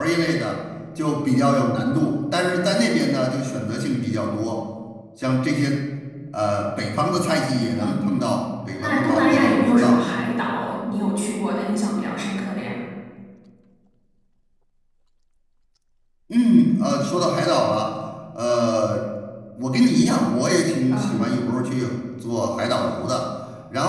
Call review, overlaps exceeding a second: present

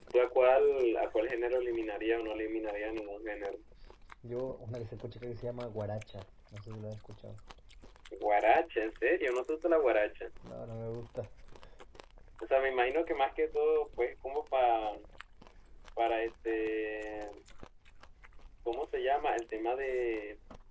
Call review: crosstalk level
none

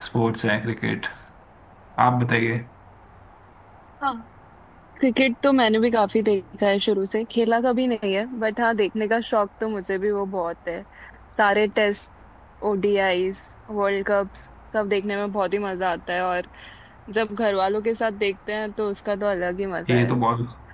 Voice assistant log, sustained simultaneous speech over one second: none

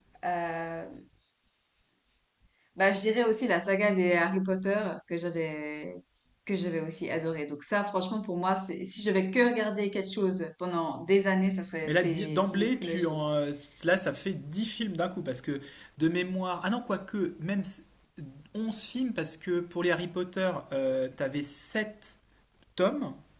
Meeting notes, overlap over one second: present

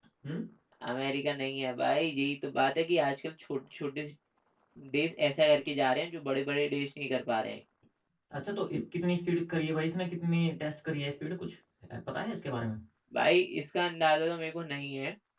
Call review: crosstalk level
none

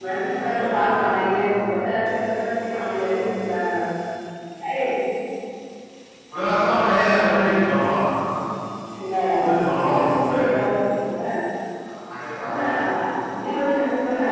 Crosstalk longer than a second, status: present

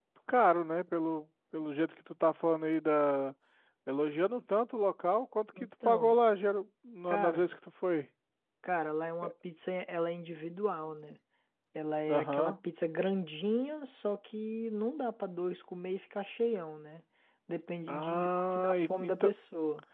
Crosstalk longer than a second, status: present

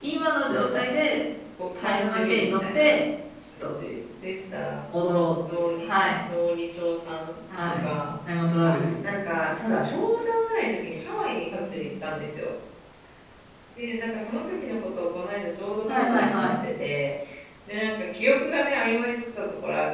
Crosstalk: present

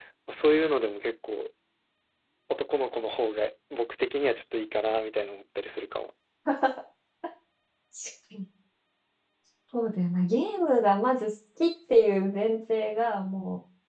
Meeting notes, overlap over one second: none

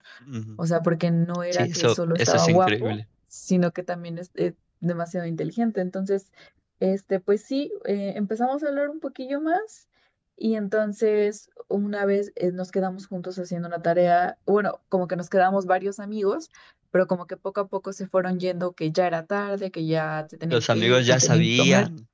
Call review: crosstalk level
present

